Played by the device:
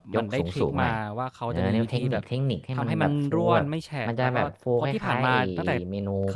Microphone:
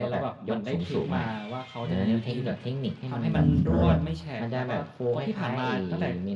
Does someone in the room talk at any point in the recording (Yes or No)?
Yes